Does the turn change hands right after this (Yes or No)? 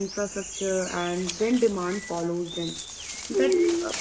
No